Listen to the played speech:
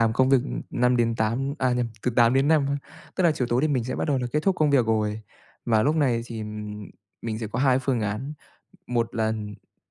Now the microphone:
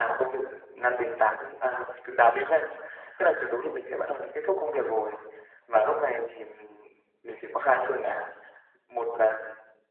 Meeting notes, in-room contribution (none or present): none